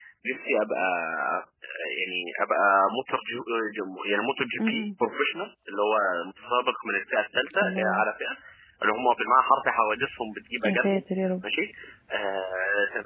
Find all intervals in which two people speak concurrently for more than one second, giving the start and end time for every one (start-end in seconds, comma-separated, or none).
none